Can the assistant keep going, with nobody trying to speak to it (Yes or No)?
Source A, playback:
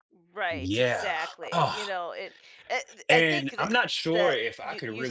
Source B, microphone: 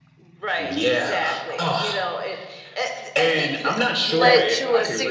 No